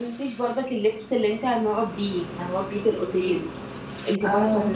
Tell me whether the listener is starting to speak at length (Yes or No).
No